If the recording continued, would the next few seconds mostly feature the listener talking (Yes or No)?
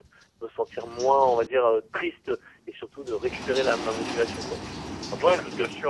Yes